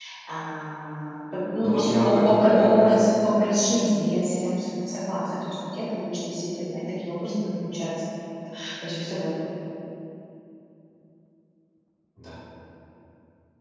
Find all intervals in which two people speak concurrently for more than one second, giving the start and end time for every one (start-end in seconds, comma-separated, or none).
1.6-2.9